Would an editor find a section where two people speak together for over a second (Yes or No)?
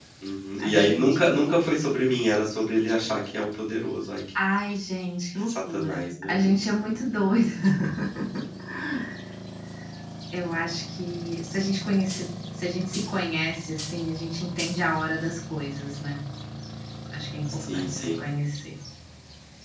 Yes